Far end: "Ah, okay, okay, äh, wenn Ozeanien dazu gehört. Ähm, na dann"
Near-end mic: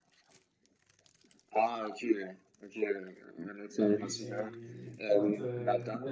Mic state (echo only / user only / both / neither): both